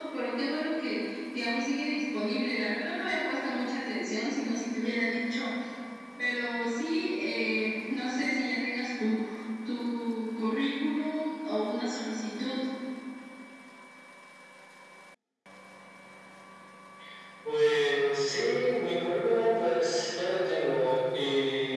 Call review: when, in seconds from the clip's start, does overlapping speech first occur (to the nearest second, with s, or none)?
none